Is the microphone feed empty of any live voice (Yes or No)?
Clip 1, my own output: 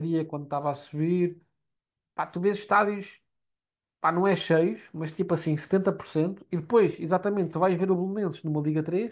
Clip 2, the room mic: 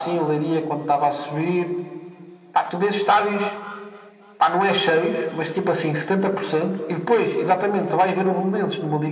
Yes